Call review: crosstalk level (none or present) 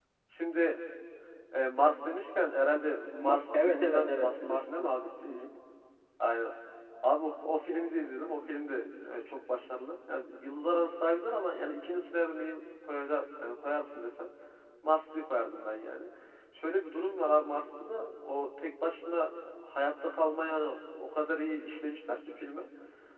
present